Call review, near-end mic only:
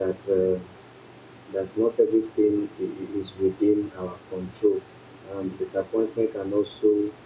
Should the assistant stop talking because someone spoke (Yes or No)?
Yes